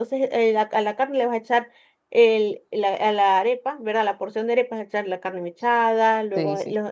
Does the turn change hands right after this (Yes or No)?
No